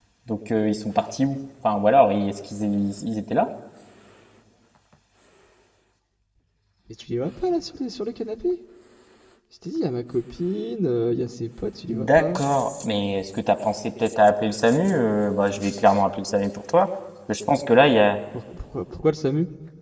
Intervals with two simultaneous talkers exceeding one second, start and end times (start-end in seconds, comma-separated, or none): none